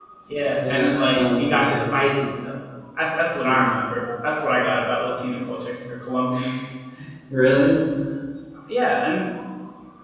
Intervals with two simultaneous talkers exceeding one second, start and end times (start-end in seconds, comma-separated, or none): 0.6-1.8